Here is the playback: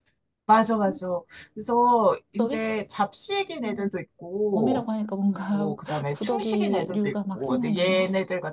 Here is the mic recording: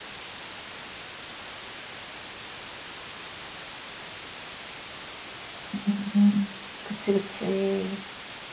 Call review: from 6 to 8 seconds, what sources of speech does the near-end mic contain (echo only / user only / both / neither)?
user only